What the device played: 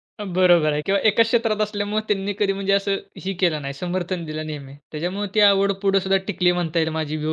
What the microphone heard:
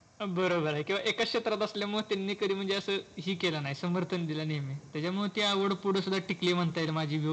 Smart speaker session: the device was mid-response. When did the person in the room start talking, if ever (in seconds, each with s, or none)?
none